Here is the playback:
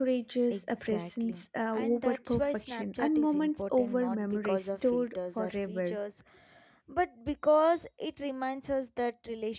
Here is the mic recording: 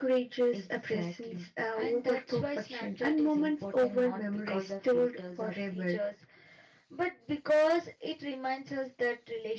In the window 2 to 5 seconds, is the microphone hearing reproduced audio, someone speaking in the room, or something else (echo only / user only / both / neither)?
echo only